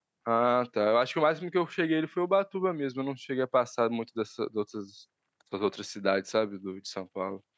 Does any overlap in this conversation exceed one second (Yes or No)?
No